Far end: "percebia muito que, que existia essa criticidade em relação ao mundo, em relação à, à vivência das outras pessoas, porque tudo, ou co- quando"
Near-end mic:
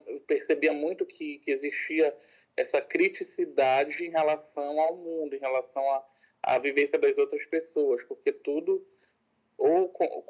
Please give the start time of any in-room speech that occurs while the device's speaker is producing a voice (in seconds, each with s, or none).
none